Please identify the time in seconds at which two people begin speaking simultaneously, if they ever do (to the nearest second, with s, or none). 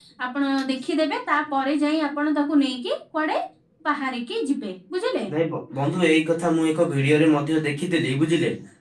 none